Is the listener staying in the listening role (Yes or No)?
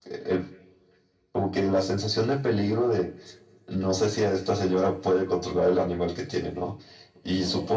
Yes